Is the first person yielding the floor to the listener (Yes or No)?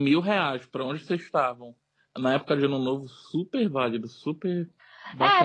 Yes